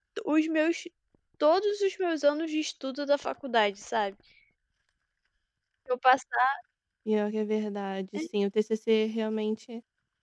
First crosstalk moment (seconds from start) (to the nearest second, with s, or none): none